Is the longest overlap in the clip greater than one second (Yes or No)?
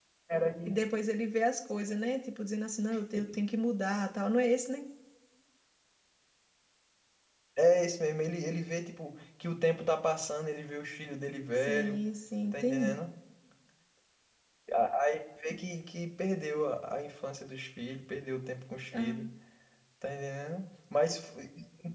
No